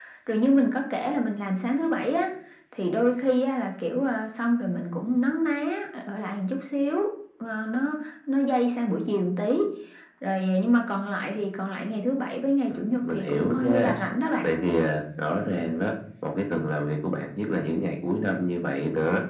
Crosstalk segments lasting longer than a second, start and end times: 12.7-13.9

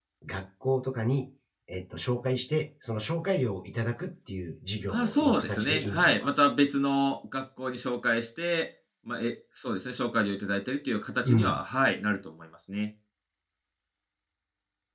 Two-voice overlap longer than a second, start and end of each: 4.9-6.3

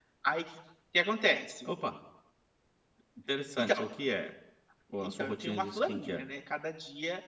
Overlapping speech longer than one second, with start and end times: 5.0-6.2

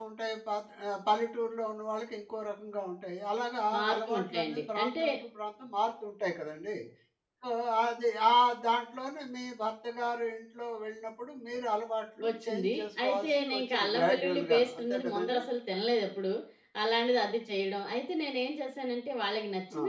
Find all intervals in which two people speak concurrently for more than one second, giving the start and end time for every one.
3.7-5.0, 12.3-15.4

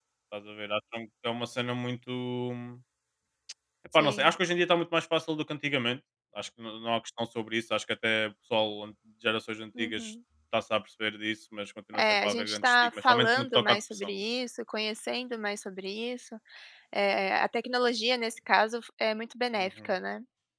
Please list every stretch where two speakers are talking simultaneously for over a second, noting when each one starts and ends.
11.9-14.1

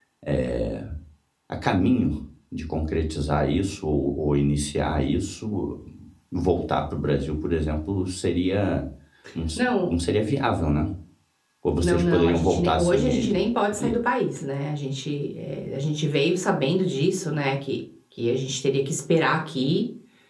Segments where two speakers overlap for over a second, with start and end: 11.8-13.4

